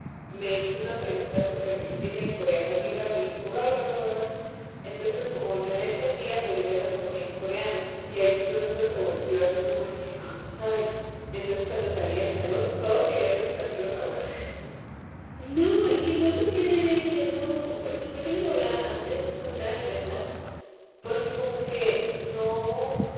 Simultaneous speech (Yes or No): No